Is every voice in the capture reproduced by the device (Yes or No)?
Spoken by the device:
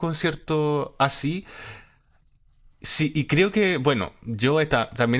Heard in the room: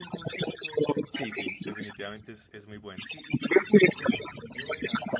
No